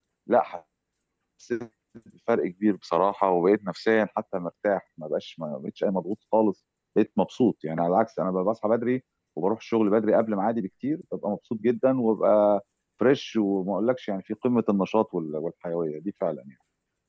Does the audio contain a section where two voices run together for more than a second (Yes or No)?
No